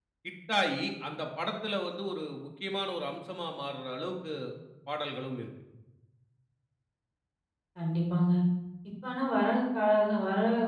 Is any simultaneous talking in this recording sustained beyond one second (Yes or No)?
No